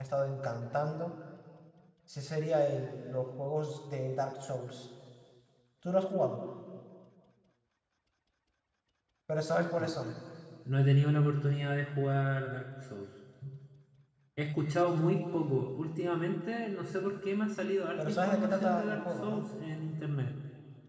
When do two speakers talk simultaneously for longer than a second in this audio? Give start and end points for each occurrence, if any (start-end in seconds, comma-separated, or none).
18.0-19.4